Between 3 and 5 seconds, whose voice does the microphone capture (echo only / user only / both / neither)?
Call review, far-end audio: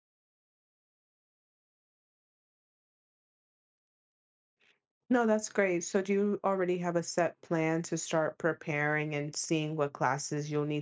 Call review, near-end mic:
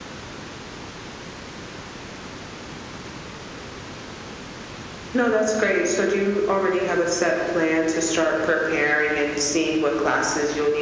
neither